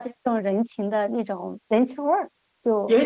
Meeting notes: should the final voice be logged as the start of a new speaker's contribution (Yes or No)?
Yes